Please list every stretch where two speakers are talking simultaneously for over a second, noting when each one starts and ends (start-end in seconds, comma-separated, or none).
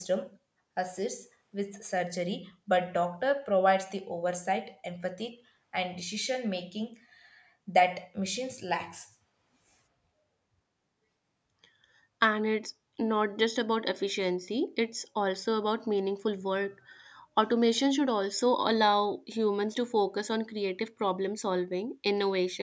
none